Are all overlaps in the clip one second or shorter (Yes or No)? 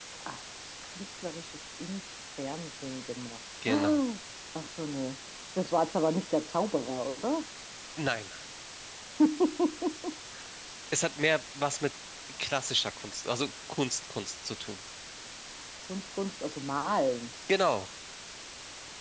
Yes